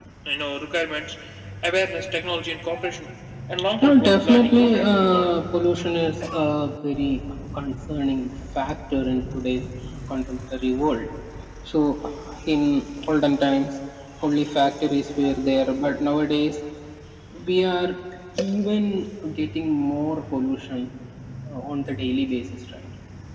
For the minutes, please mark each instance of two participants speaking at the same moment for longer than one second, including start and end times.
3.8-5.3

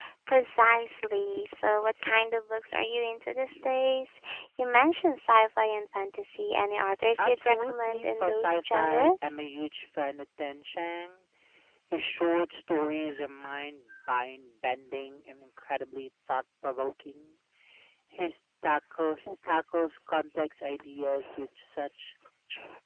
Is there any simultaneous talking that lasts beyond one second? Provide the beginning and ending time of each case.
7.2-9.3

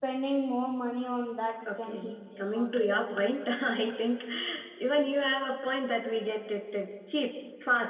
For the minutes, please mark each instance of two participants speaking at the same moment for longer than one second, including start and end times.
1.7-3.0

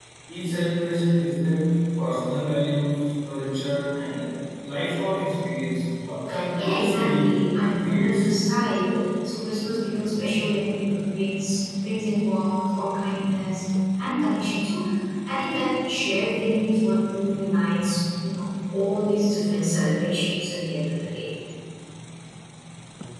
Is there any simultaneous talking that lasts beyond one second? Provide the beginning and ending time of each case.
6.5-8.3

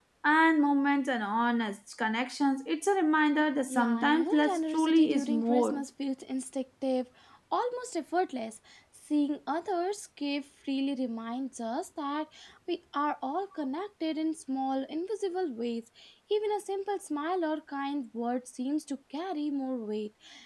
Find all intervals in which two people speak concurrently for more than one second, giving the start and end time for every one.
3.7-5.8

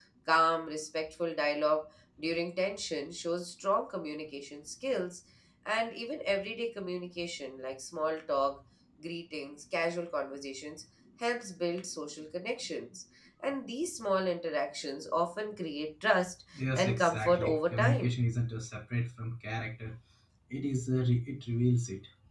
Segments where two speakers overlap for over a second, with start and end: 16.7-18.1

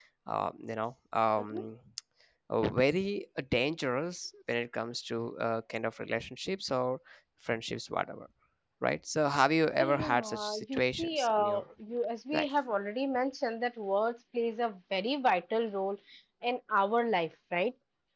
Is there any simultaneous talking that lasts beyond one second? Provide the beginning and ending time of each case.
9.8-11.6

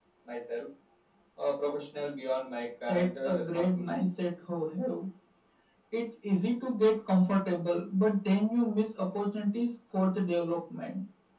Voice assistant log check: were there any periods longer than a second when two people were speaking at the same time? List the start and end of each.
2.9-4.1

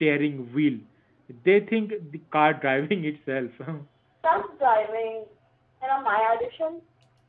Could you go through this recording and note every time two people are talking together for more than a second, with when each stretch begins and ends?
none

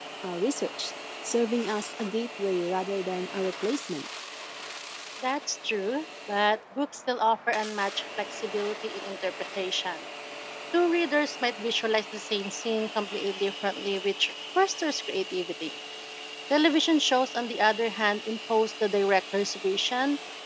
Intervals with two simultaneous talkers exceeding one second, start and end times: none

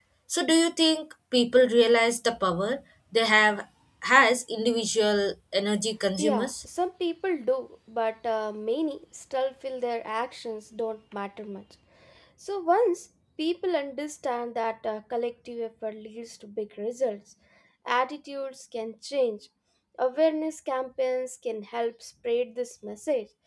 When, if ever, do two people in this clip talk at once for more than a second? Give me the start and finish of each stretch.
none

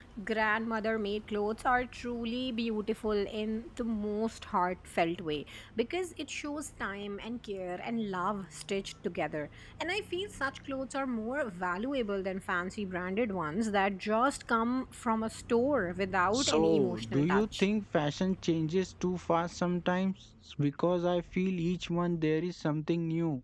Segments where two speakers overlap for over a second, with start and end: 16.3-17.7

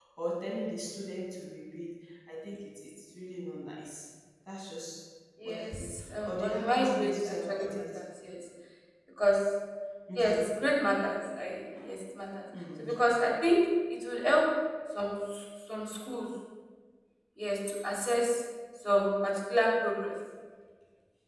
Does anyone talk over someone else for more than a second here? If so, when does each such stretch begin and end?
5.5-8.0

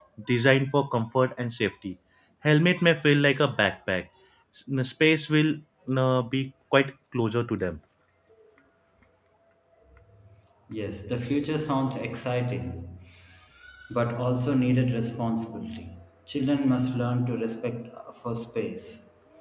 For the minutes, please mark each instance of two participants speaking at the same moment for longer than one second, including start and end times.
none

